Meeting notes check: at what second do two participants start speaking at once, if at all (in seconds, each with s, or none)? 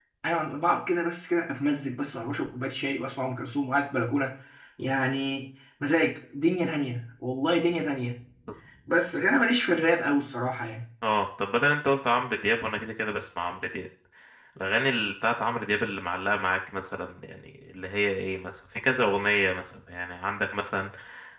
none